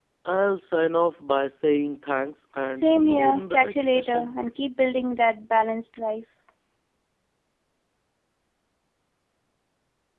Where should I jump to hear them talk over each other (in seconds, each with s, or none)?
2.7 s